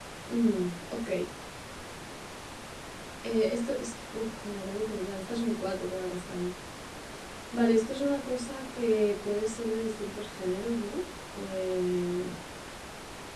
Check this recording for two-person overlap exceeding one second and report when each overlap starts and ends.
none

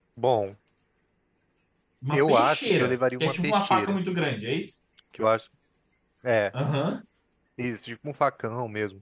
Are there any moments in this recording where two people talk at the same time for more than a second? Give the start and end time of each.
2.1-4.0

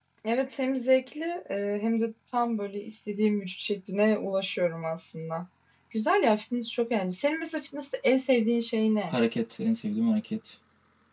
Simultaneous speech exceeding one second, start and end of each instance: none

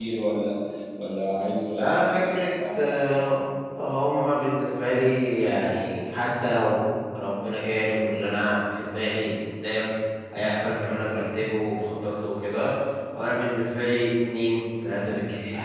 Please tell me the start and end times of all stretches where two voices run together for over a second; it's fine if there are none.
1.8-3.4

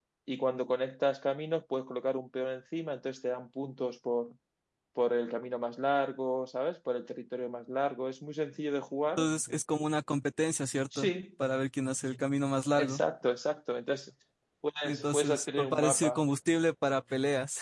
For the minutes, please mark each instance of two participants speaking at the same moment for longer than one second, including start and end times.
14.8-16.2

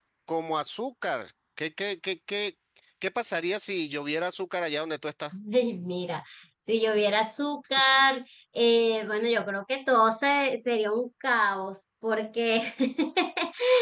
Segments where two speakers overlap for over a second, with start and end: none

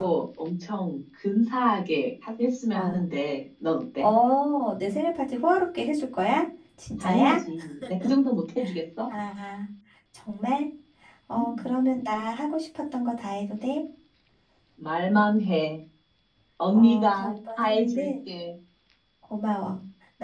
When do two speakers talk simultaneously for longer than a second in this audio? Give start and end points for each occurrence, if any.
16.7-18.1

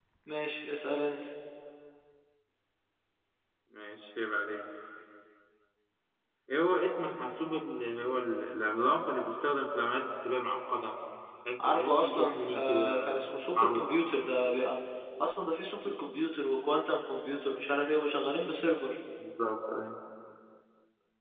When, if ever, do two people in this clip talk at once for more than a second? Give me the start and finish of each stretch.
11.7-13.2

